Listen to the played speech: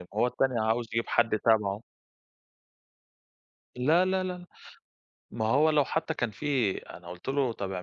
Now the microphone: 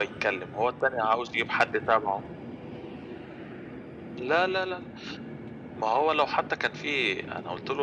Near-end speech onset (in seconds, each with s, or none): none